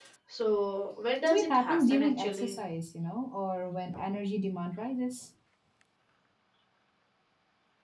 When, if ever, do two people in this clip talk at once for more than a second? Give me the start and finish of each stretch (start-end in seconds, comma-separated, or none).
1.3-2.6